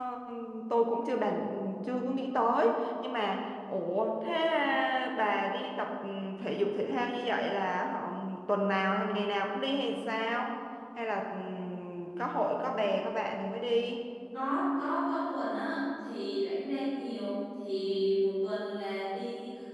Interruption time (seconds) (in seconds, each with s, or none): none